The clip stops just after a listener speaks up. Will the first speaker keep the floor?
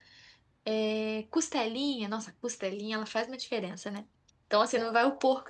Yes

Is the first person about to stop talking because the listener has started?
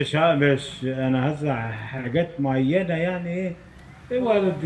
No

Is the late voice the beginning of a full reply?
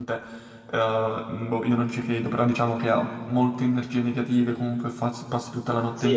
Yes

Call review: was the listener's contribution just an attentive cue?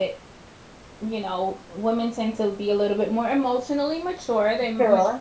Yes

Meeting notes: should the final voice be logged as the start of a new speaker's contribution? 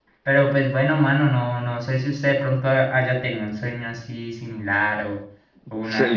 Yes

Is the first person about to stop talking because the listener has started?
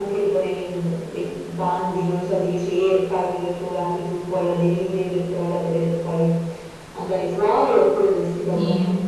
No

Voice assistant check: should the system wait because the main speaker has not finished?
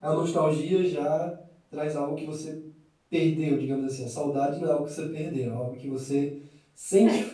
Yes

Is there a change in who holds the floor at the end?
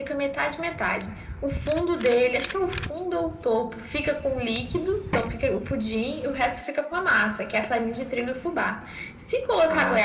No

